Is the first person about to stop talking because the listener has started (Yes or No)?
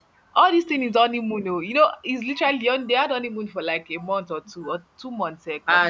Yes